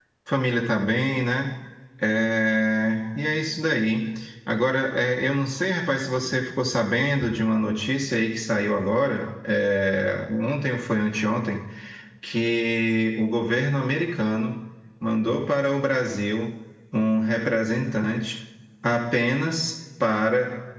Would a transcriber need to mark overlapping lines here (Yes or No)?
No